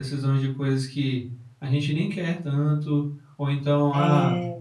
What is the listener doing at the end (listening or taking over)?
listening